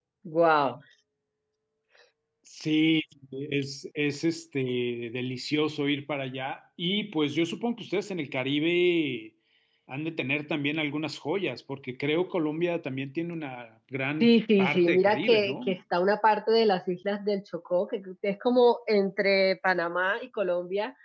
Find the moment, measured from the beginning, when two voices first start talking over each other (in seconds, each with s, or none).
14.2 s